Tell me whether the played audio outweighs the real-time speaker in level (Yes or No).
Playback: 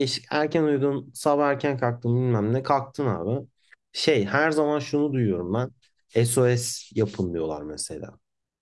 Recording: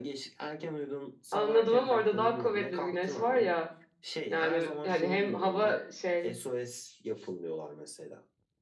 No